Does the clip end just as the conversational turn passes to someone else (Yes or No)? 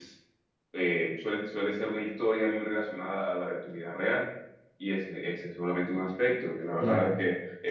Yes